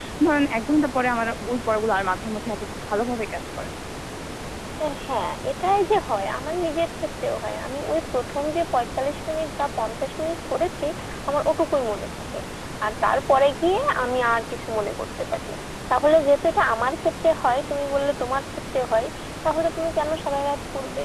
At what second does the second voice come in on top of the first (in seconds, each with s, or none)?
none